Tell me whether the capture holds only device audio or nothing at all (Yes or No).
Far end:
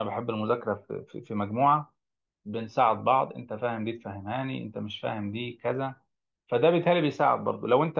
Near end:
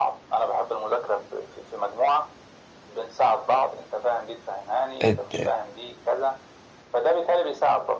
No